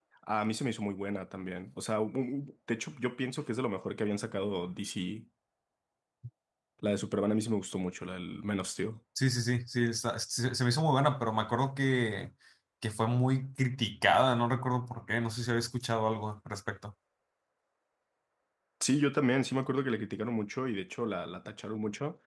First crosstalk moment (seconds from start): none

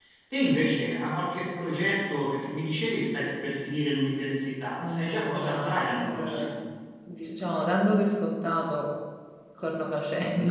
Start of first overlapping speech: 4.8 s

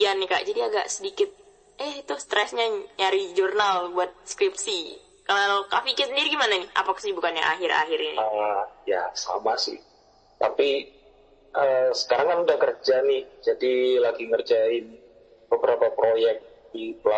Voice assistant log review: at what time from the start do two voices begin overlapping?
none

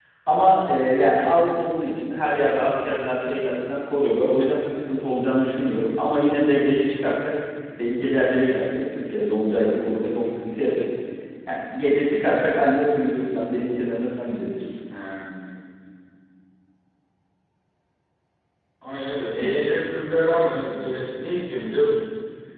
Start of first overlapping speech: none

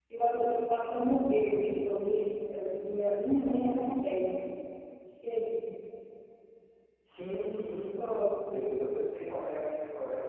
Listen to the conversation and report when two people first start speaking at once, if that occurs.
none

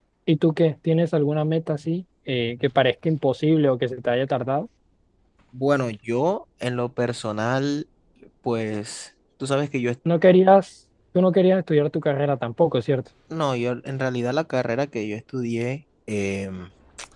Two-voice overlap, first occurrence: none

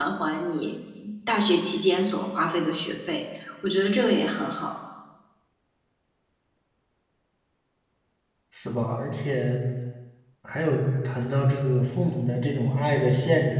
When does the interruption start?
none

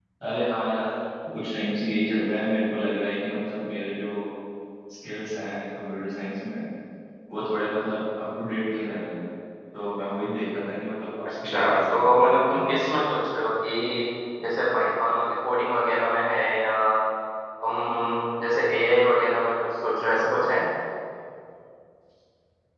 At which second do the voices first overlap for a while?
11.4 s

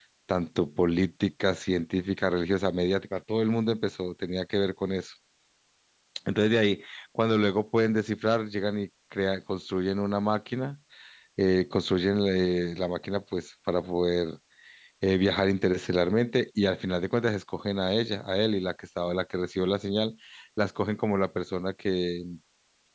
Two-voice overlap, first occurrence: none

